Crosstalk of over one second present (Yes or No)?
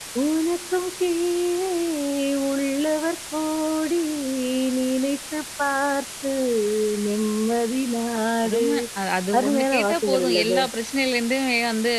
Yes